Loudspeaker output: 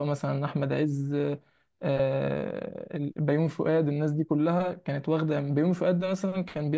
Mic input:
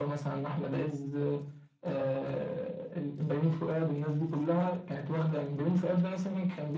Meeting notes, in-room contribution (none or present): none